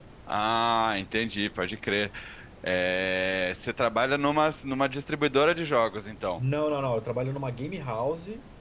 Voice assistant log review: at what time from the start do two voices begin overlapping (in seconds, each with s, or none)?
none